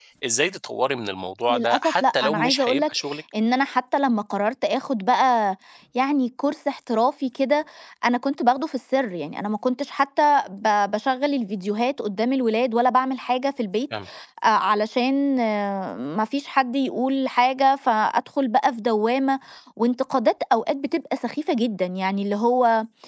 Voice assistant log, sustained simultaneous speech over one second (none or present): present